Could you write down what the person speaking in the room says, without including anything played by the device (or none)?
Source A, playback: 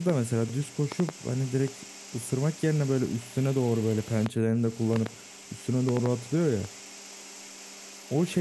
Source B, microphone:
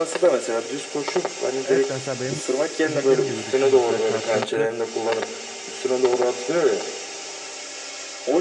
Evet de mesela benim, benim dediğim gibi düşün mesela karşılıklı